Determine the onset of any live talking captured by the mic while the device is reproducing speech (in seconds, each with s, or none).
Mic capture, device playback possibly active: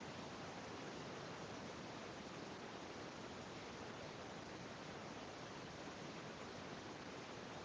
none